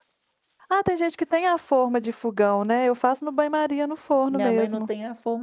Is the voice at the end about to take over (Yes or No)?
Yes